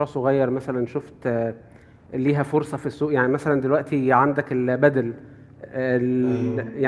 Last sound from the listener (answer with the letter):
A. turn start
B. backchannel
B